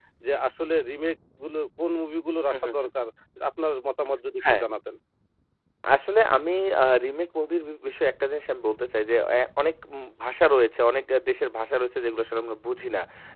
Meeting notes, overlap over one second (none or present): none